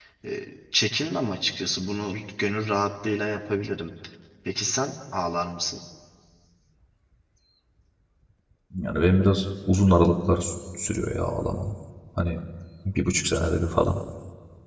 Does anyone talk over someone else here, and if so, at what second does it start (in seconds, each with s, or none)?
none